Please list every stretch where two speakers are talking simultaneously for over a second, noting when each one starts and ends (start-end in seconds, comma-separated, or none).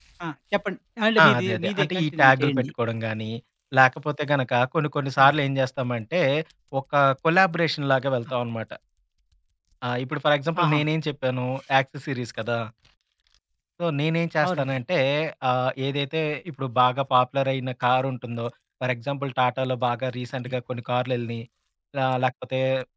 1.2-2.7